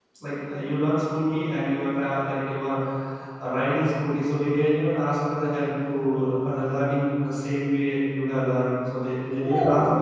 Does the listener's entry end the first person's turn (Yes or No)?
Yes